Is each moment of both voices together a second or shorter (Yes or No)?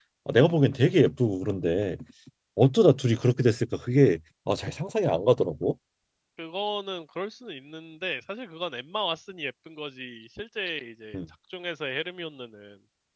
Yes